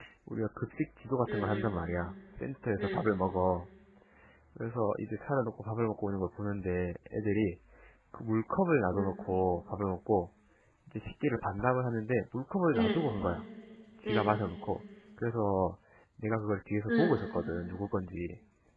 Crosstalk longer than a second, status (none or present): none